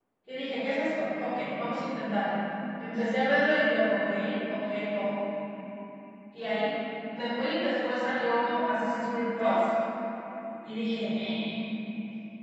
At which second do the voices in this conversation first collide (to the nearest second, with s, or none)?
none